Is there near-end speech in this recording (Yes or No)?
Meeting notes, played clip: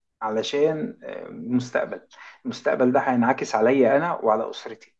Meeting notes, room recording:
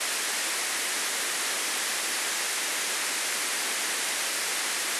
No